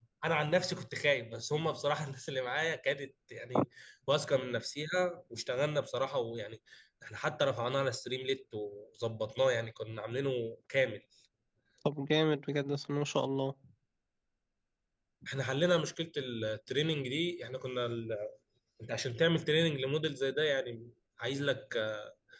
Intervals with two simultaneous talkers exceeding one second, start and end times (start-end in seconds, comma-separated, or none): none